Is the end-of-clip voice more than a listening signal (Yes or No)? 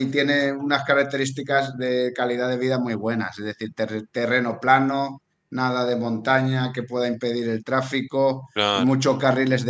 No